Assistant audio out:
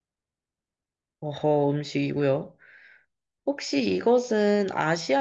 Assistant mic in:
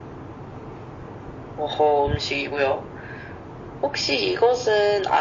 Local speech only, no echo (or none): none